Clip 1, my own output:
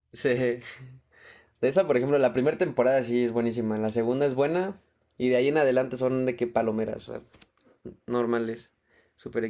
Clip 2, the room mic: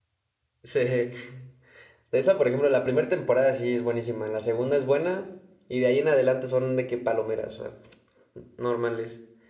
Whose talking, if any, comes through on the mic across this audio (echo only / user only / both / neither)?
echo only